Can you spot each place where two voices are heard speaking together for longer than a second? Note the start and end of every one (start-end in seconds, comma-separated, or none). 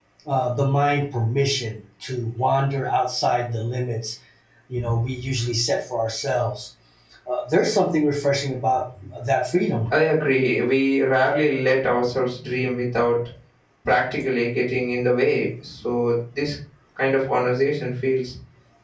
none